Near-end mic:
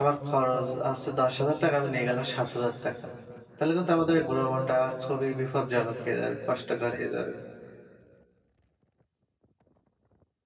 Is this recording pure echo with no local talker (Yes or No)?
No